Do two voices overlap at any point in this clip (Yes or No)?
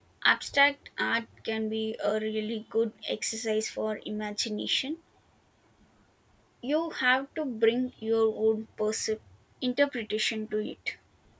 No